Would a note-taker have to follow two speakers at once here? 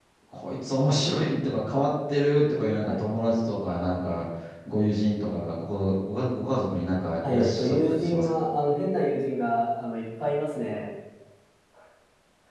Yes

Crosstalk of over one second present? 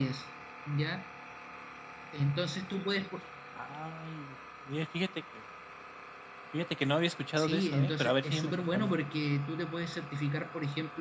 Yes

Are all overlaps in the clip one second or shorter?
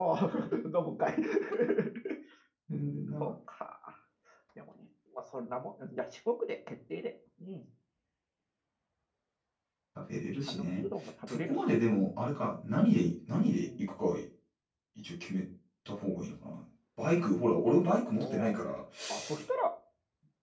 Yes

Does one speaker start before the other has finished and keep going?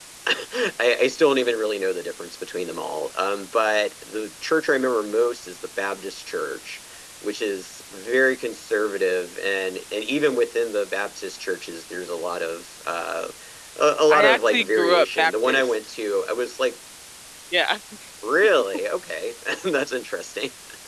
Yes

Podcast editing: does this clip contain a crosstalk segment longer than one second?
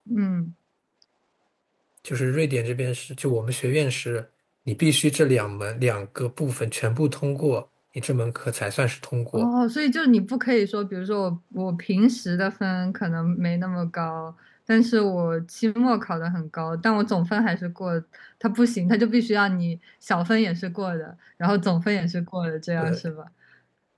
No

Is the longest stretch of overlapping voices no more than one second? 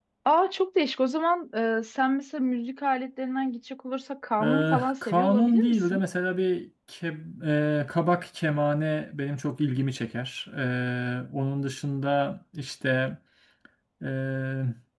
No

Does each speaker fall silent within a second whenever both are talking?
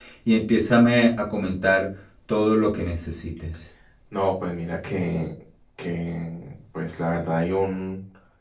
Yes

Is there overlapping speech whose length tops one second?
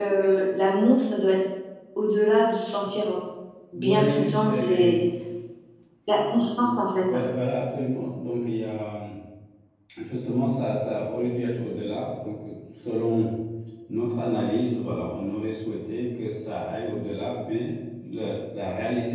Yes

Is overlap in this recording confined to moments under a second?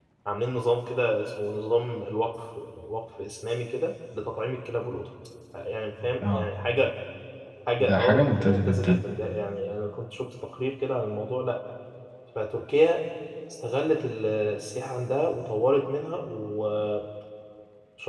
No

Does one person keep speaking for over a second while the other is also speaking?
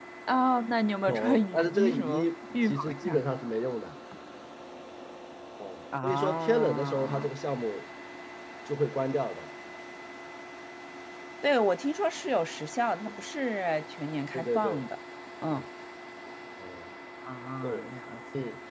Yes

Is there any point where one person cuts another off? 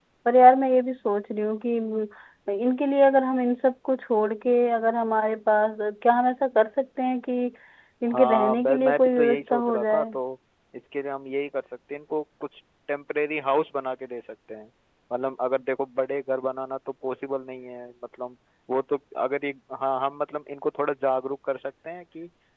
Yes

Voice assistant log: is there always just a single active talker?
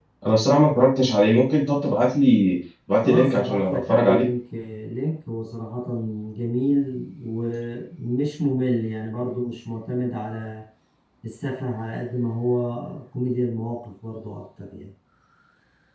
No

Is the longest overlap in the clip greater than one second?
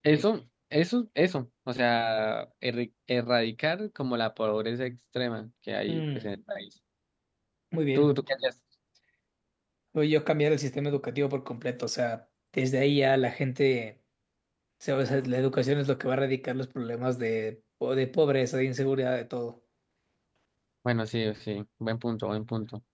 No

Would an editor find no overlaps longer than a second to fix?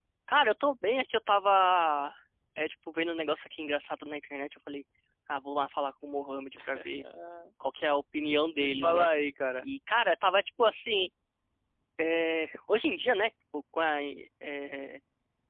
Yes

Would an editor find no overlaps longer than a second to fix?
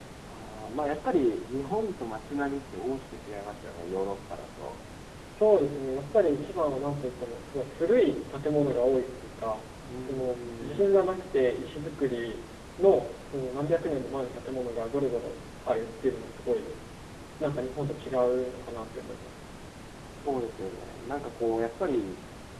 No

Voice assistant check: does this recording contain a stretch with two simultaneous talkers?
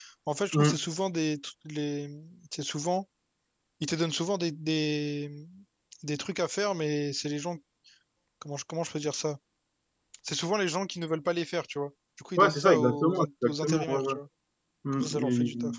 Yes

